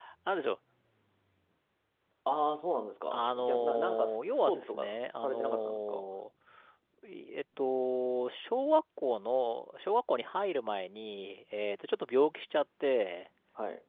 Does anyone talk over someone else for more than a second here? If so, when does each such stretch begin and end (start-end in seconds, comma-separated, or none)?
3.1-6.1